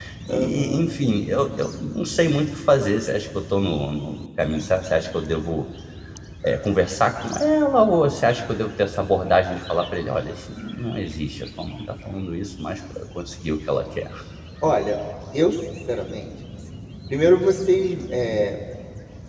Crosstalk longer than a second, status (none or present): none